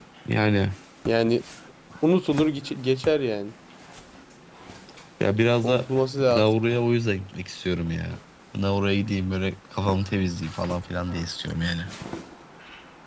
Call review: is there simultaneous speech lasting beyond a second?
No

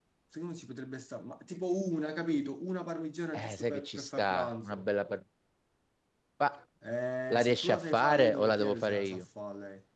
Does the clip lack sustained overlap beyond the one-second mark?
No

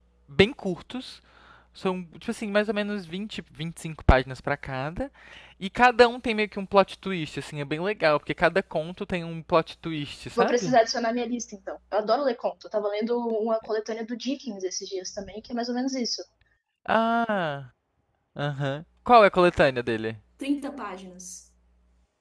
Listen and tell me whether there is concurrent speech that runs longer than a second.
No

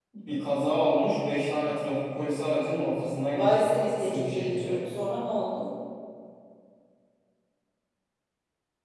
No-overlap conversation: No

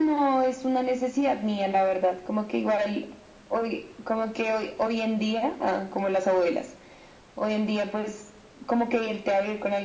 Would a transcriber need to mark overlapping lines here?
No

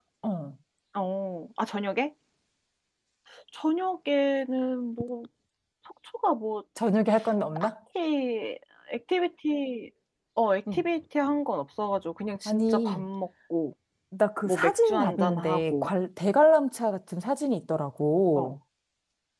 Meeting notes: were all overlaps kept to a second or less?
No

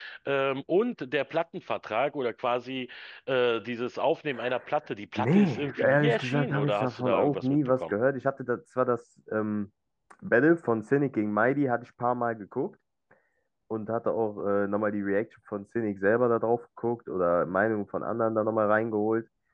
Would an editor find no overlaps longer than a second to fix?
No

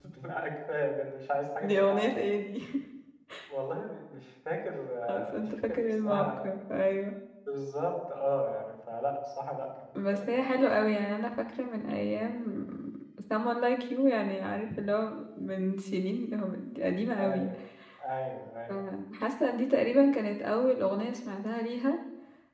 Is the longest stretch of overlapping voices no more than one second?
No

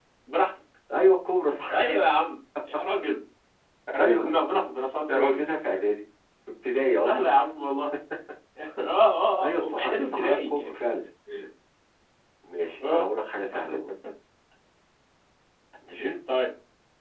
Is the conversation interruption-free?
No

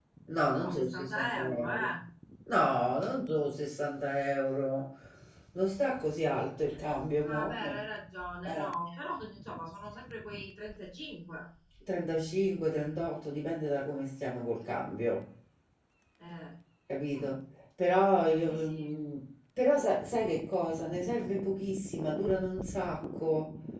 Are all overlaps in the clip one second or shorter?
No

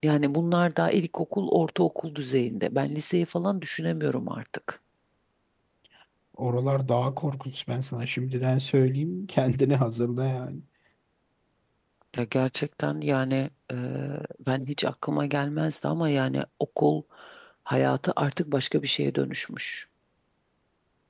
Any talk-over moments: No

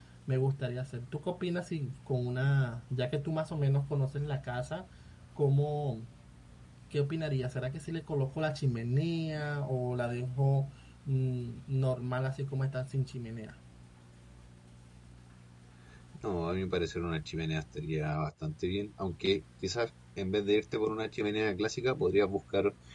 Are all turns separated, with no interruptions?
Yes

